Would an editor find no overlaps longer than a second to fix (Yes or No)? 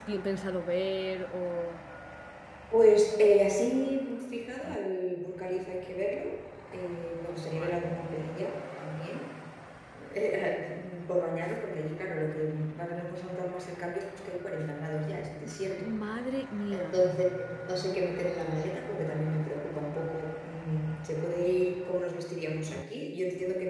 Yes